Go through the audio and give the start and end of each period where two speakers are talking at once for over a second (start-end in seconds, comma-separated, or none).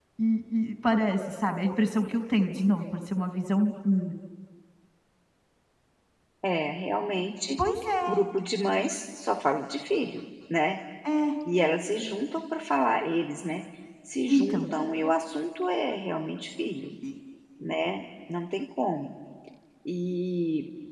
none